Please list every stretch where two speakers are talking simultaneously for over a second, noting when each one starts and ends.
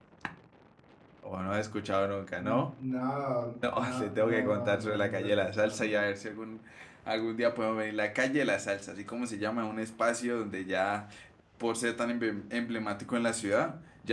3.7-6.0

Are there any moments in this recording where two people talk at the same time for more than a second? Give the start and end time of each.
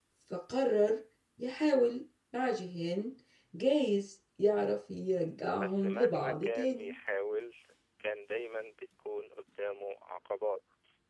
5.6-6.9

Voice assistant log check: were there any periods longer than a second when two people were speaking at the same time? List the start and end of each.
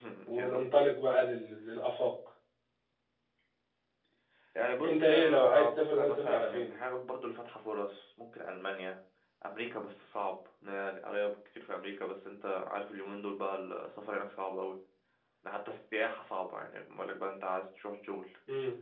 4.9-6.7

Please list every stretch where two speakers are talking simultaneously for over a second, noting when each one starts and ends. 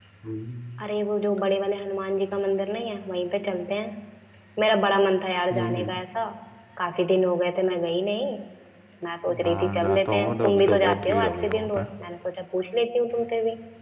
9.4-11.8

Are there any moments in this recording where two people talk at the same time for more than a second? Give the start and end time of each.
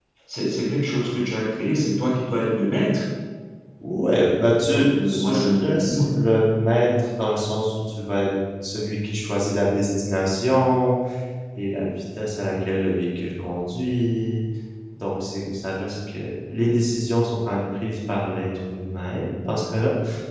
4.7-6.0

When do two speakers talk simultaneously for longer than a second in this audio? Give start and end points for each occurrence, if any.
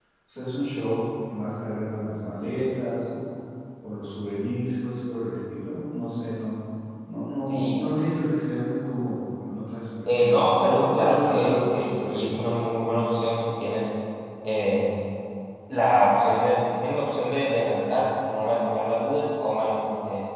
10.1-12.3

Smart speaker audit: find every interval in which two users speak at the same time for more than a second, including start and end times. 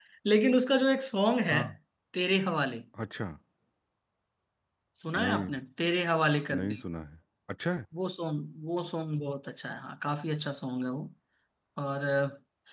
none

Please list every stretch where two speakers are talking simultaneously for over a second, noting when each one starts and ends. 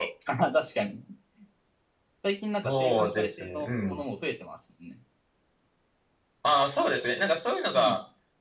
2.6-4.0

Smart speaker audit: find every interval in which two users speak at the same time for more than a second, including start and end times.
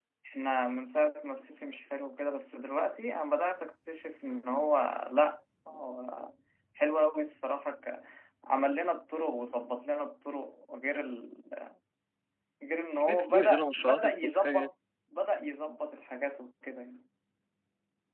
13.1-14.7

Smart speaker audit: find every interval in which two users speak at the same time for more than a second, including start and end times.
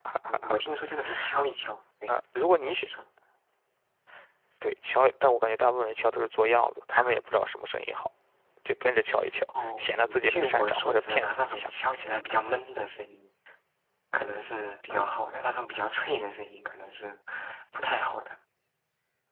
9.6-11.7

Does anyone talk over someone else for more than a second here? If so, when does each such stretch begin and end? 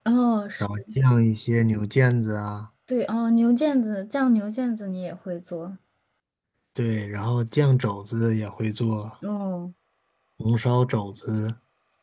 none

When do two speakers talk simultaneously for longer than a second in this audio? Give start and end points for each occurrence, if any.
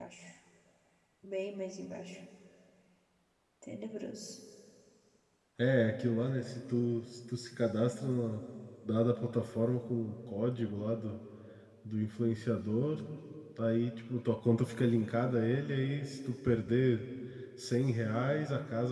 none

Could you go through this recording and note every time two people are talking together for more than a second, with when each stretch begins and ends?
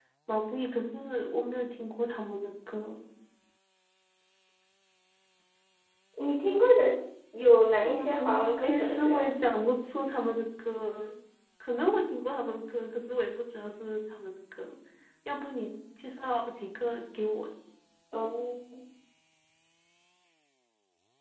7.8-9.3

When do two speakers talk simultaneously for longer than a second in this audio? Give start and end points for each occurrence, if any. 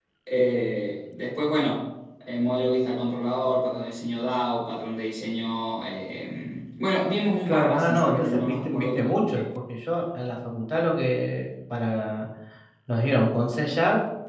7.5-9.4

